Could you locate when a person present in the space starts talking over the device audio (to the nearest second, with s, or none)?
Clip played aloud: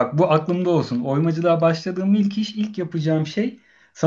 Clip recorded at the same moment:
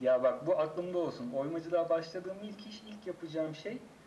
none